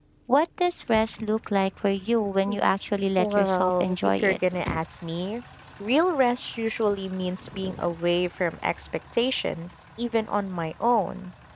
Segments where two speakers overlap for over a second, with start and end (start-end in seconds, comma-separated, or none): 3.2-4.4